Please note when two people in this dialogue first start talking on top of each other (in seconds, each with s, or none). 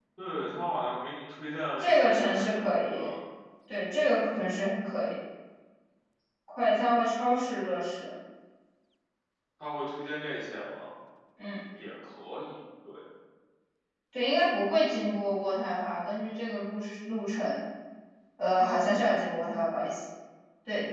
1.8 s